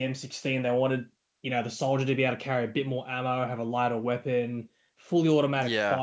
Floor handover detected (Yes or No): No